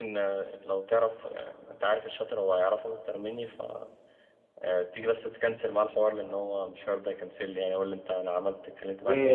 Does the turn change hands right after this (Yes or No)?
Yes